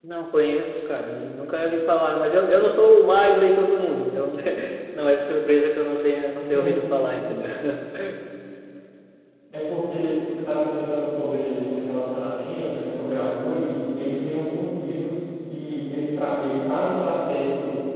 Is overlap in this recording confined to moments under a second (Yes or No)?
Yes